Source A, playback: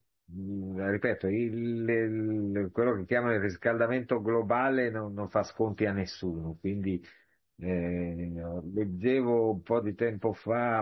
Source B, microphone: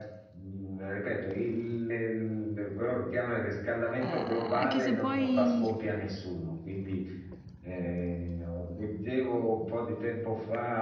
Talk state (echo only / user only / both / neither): both